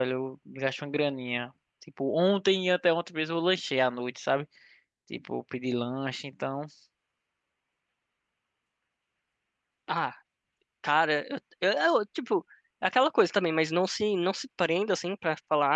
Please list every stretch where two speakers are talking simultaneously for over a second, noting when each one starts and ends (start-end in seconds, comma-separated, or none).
none